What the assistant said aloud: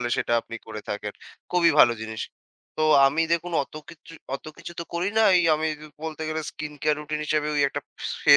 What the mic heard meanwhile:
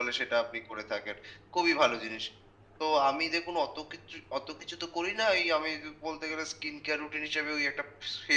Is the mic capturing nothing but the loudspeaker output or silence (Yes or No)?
Yes